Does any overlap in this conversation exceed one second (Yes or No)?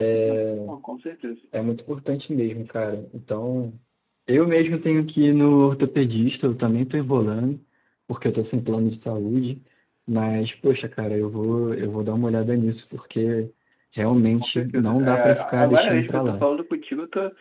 Yes